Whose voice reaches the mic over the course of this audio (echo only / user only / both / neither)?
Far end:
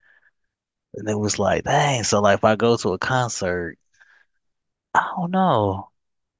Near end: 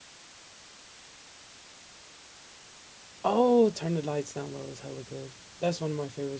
user only